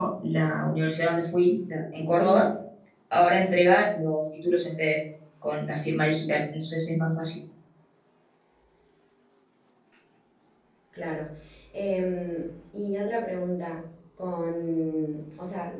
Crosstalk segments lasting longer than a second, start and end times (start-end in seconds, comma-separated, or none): none